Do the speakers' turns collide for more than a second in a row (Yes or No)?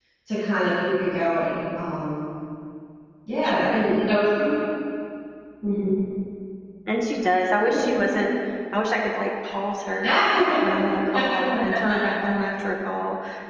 No